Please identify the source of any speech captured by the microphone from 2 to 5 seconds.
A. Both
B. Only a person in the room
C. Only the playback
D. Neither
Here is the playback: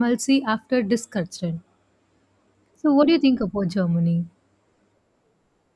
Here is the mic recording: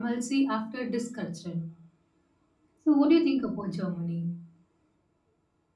C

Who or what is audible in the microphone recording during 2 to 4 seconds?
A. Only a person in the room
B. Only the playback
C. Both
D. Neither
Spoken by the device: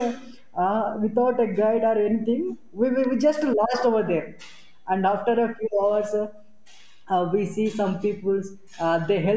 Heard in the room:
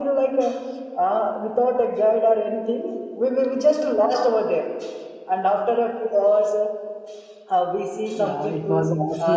B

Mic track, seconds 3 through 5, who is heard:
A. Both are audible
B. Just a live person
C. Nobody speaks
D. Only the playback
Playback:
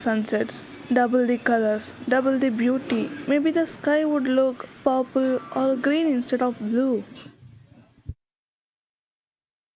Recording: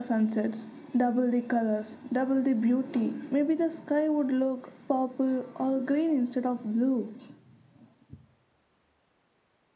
D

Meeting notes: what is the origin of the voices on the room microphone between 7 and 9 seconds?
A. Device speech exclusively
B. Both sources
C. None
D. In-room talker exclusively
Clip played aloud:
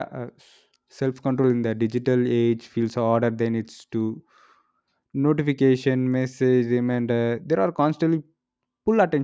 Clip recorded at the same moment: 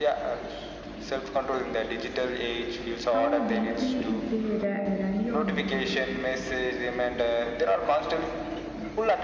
A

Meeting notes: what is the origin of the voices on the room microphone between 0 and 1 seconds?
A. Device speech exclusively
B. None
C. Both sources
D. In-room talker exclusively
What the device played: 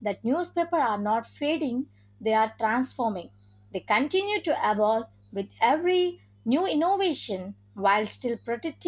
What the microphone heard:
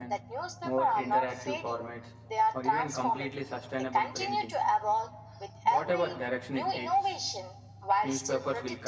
C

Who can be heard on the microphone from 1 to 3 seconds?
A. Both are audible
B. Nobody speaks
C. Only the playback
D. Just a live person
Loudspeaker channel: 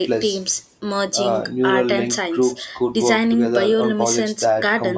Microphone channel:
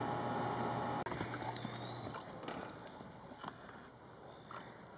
B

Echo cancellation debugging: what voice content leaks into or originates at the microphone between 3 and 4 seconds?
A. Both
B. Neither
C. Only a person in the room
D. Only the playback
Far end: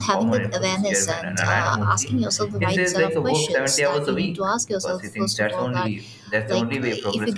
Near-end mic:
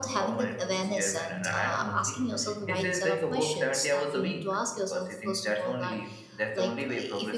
D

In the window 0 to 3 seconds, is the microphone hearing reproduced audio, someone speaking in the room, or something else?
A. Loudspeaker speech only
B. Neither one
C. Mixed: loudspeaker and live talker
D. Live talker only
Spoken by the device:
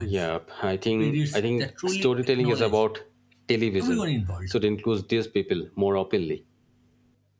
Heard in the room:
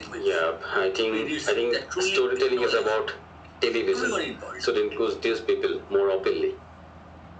A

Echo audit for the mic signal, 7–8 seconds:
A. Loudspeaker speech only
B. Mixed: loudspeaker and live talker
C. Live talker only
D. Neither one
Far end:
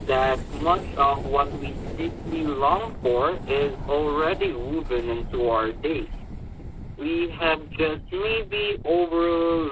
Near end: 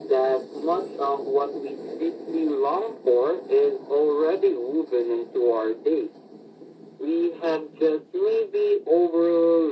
A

